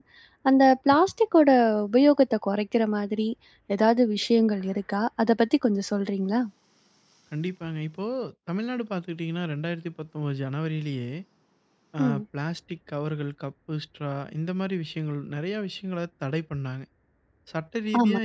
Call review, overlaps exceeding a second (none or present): none